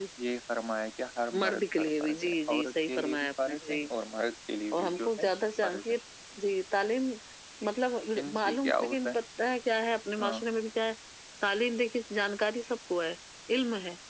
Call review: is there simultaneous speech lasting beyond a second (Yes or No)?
Yes